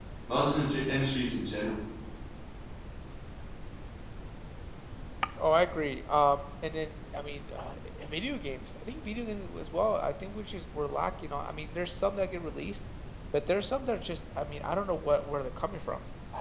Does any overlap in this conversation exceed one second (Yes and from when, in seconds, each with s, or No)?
No